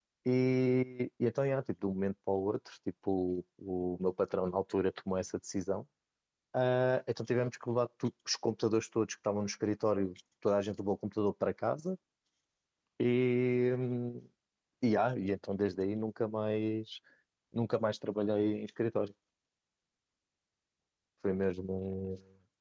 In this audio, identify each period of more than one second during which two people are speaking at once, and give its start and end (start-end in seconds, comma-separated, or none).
none